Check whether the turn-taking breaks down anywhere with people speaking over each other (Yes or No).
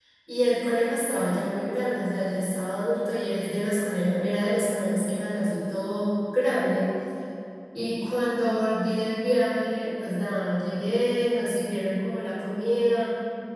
No